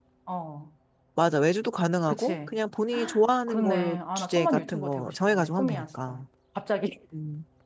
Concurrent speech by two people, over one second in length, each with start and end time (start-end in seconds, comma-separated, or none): 3.5-6.2